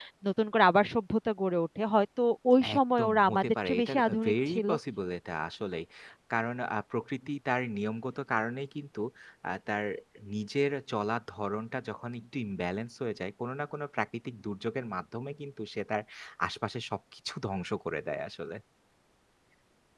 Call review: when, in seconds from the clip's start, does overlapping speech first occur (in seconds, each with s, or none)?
2.6 s